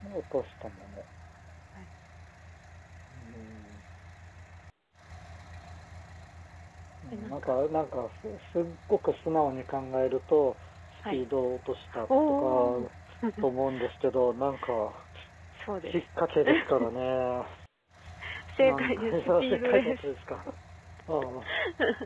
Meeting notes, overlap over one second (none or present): present